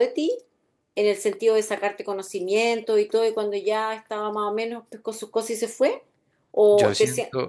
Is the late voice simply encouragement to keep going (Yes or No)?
No